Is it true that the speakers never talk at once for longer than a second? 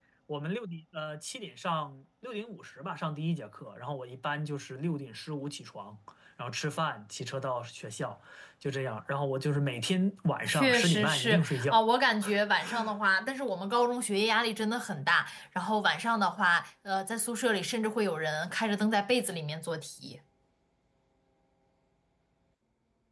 No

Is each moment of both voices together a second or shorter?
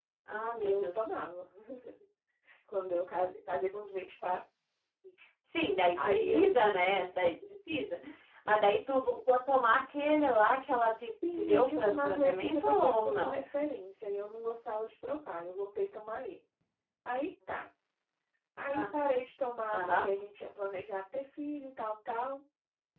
No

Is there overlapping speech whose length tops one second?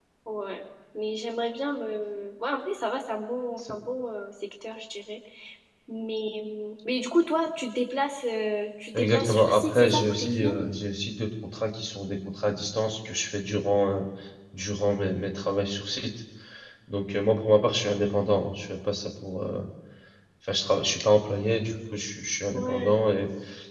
Yes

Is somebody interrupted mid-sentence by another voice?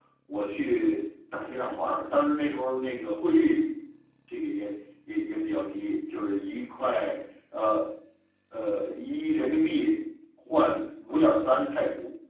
No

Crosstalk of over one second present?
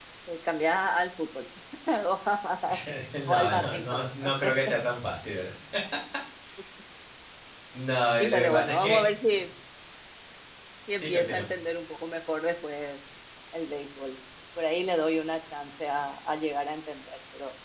Yes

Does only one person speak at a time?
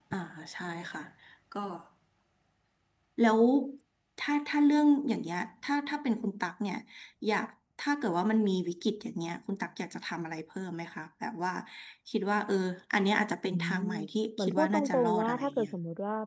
No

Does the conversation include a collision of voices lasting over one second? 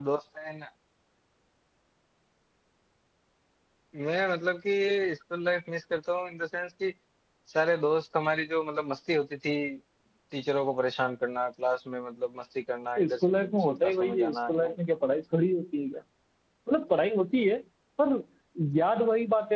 Yes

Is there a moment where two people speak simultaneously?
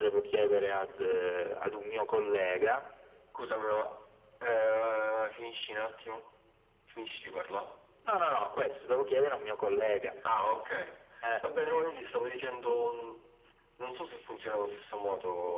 No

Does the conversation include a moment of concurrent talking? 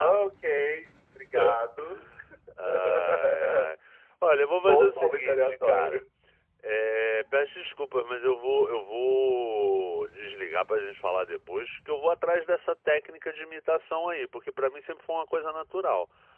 Yes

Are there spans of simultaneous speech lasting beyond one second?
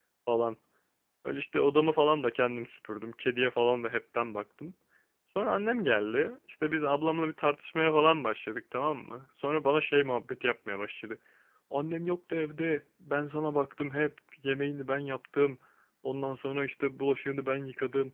No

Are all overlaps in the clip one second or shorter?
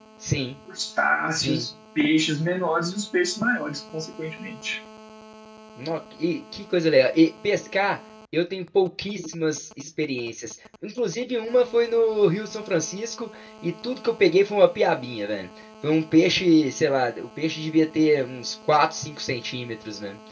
Yes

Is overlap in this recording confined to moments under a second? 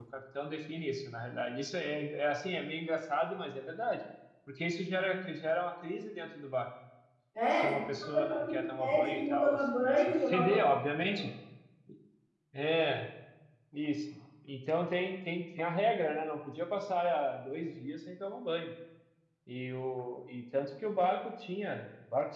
No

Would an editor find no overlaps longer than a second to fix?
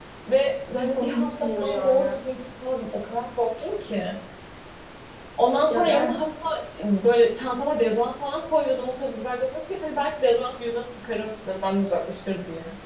No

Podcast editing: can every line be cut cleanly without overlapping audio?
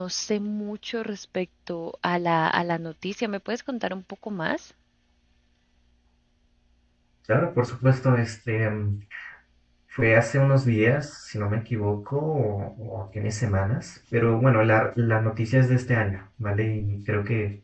Yes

